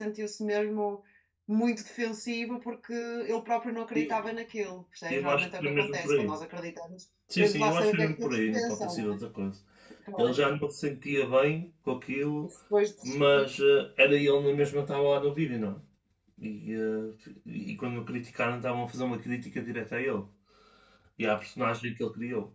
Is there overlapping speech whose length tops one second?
Yes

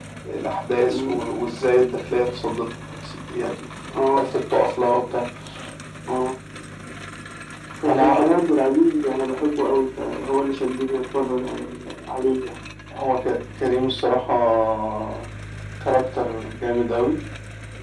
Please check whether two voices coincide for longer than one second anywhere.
No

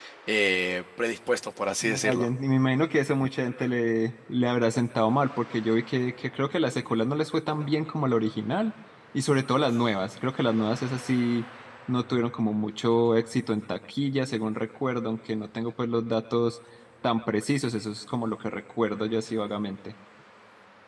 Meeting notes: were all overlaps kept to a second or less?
Yes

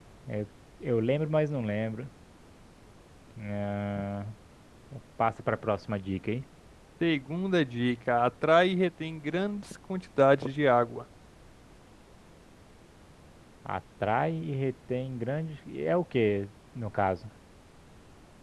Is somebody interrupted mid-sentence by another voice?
No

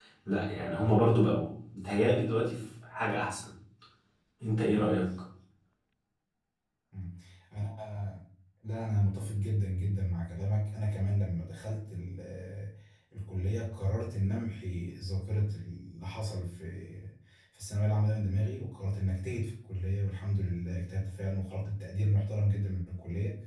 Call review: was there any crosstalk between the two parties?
No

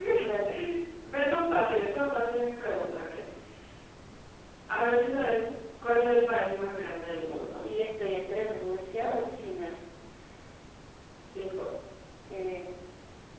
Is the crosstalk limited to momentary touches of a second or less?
Yes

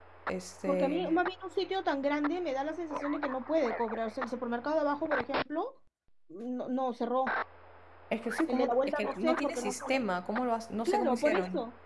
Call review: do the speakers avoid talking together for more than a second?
No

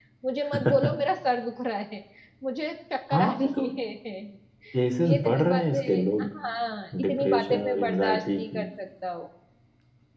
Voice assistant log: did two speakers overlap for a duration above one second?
Yes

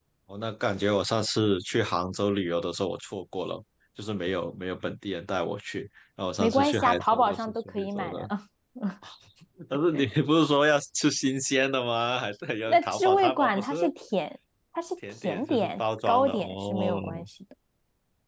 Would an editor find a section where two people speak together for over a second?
Yes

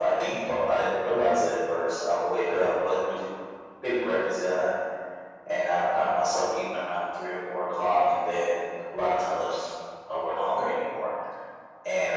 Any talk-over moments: No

